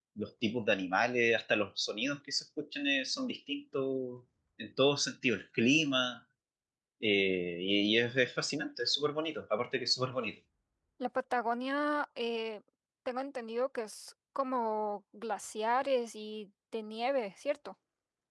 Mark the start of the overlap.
none

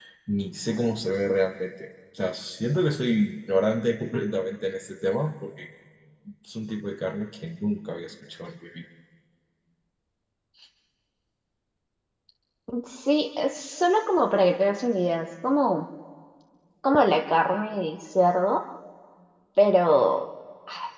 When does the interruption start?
none

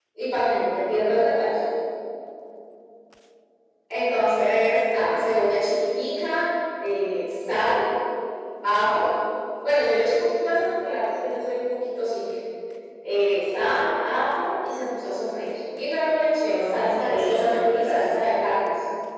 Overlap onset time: 16.5 s

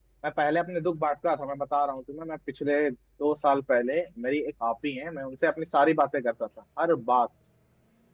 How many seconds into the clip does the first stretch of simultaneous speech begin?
none

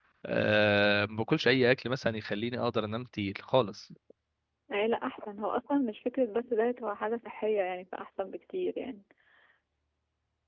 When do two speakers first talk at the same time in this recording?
none

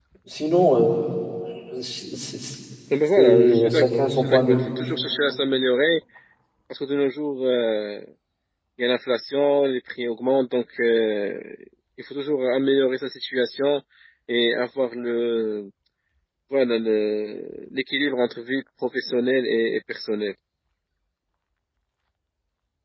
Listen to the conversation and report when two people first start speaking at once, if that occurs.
3.2 s

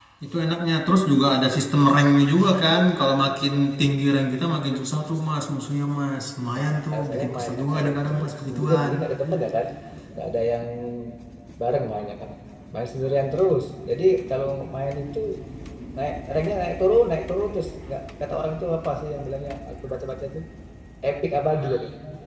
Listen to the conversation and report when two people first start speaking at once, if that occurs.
6.5 s

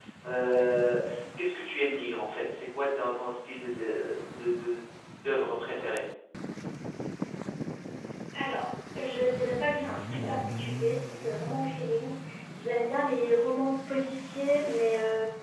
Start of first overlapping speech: none

